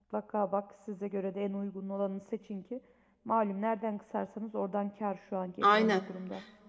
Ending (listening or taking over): taking over